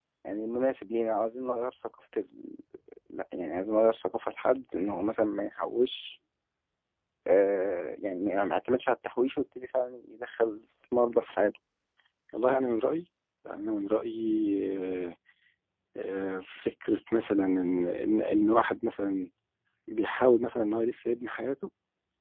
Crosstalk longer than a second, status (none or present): none